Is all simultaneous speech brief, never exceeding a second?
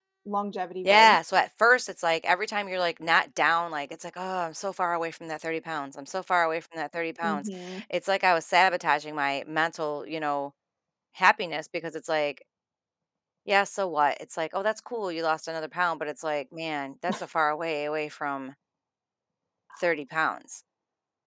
Yes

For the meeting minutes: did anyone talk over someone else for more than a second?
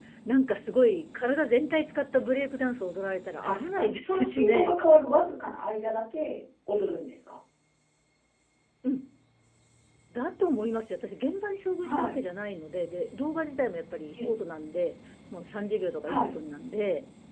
Yes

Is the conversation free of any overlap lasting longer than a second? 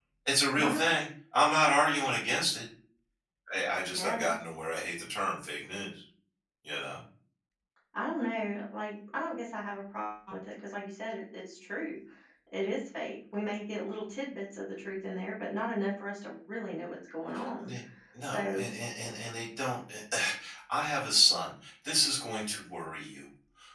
Yes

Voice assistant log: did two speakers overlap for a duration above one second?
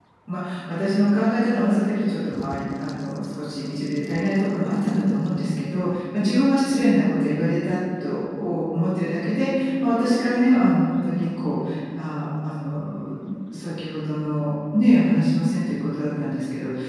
No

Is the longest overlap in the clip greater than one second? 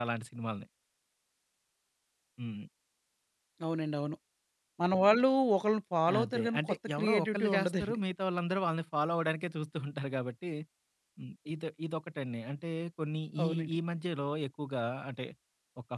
Yes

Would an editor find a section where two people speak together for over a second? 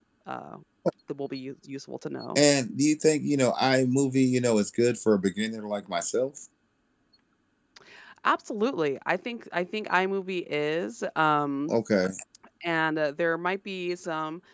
No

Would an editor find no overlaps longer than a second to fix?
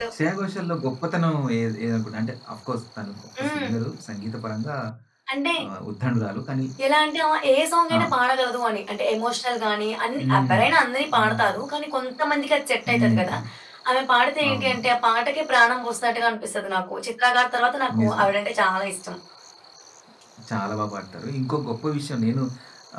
Yes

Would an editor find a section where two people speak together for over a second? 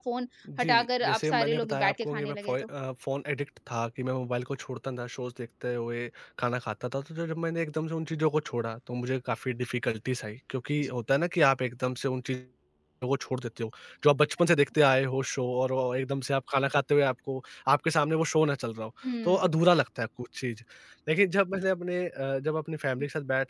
Yes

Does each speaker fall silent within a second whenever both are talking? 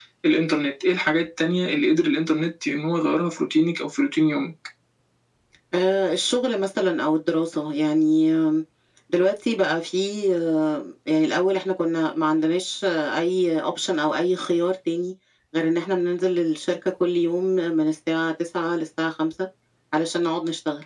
Yes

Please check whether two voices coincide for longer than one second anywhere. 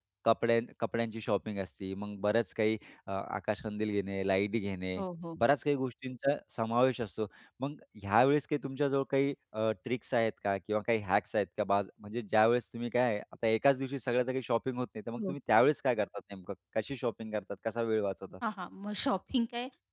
No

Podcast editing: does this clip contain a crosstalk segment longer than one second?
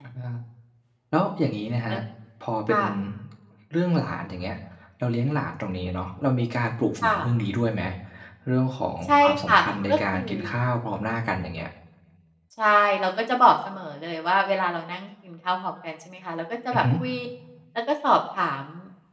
Yes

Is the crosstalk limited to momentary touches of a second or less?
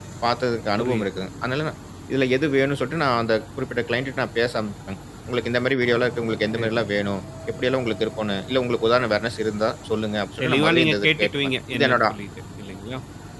No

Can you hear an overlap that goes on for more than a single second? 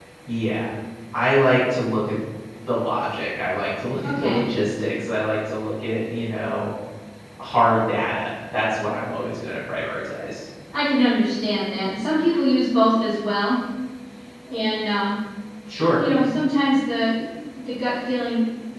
No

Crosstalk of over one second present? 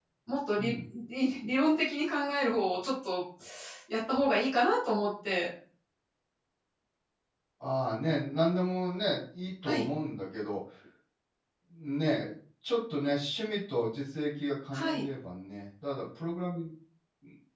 No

